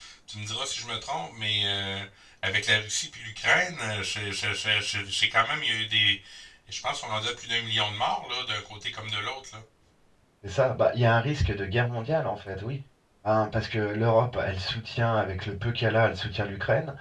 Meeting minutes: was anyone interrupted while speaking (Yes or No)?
No